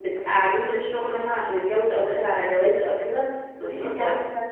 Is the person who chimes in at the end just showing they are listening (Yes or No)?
No